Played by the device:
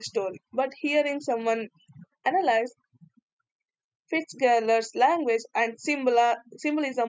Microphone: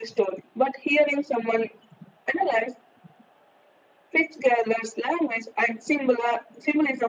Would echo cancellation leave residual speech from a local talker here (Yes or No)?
No